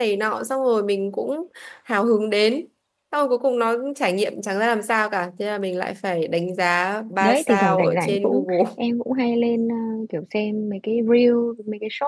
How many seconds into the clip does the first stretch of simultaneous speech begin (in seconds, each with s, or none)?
7.2 s